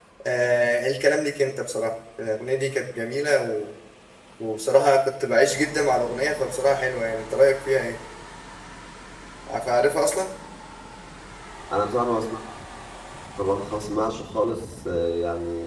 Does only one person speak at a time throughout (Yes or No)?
Yes